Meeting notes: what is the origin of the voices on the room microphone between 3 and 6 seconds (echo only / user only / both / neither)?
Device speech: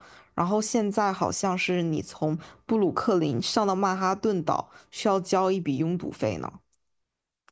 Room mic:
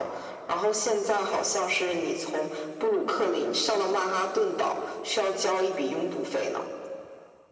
echo only